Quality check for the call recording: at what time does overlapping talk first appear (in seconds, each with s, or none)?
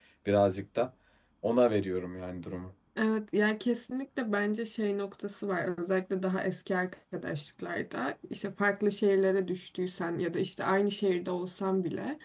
none